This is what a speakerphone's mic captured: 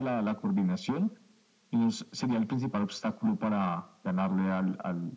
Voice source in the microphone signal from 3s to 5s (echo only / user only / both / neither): echo only